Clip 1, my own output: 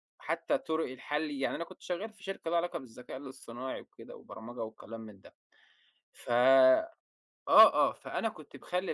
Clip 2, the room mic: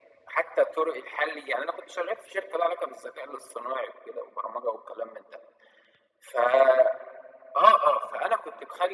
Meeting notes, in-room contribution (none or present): none